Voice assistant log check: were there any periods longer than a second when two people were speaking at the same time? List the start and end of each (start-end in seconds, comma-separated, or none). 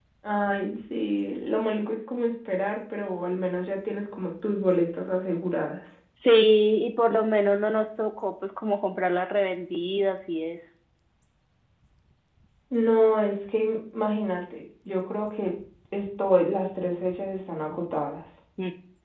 none